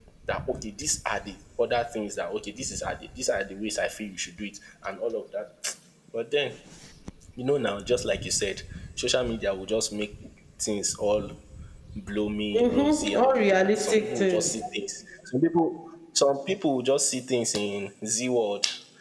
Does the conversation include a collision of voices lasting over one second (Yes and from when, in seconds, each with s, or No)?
Yes, from 12.6 s